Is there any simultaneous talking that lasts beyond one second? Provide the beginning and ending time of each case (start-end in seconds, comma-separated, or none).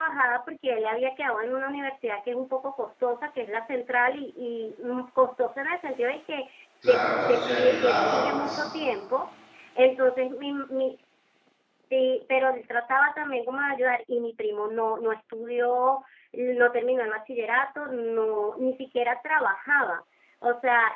6.9-8.6